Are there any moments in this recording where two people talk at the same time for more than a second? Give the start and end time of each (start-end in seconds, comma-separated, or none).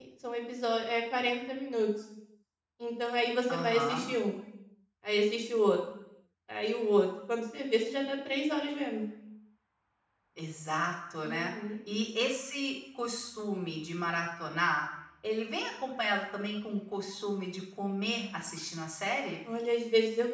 none